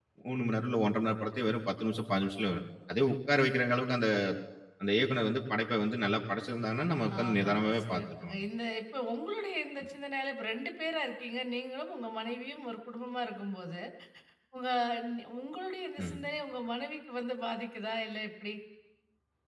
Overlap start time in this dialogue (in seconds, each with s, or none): 7.1 s